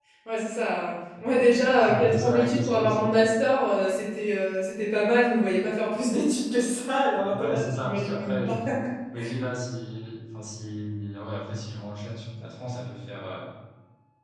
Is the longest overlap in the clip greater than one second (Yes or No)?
Yes